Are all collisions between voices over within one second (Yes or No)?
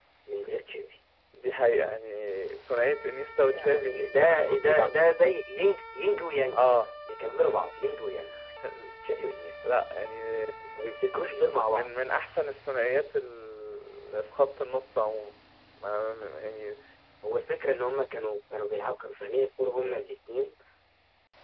No